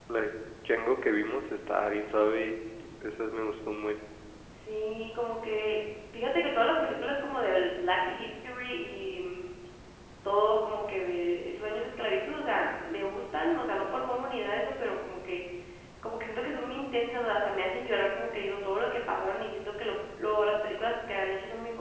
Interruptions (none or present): none